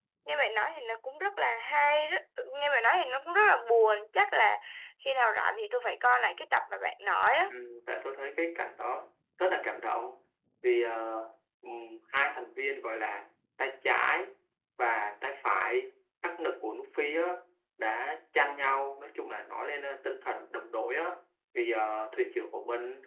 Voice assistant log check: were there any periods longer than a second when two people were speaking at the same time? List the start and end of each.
none

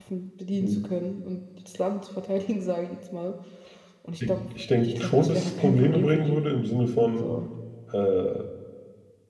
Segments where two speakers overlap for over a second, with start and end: 4.8-6.4

